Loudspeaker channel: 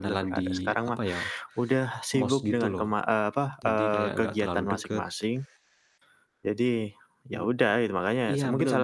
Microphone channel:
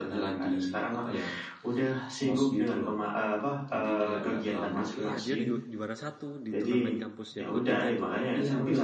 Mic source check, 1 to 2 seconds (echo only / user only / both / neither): echo only